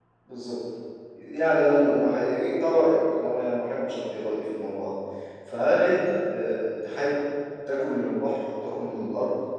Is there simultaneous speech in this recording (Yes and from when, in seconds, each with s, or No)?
No